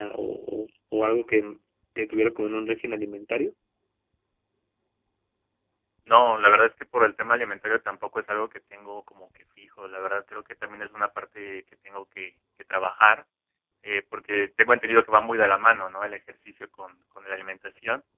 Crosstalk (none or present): none